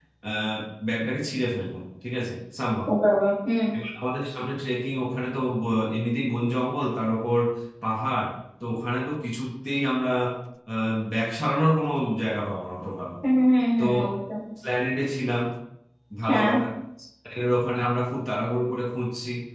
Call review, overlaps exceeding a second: none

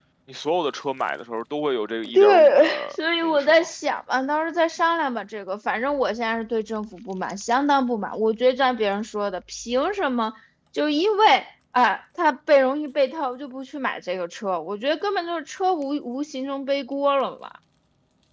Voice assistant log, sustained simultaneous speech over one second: present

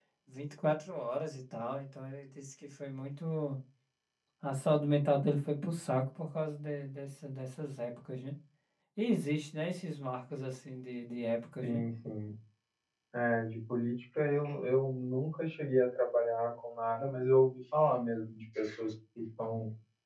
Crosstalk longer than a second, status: none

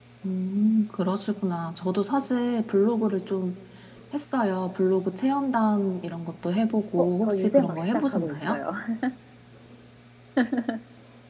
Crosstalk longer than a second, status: present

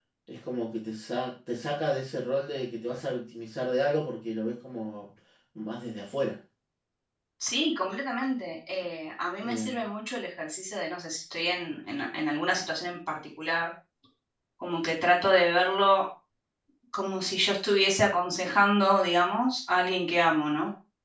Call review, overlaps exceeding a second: none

